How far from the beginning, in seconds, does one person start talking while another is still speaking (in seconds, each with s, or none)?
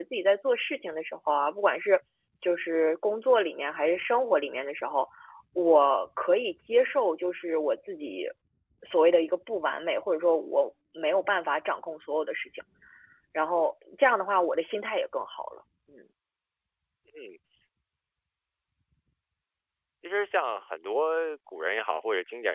none